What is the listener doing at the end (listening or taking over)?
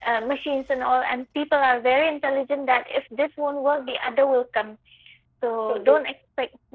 listening